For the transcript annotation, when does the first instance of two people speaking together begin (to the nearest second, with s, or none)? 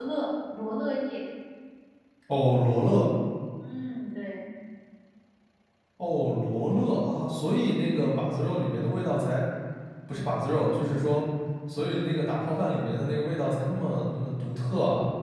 none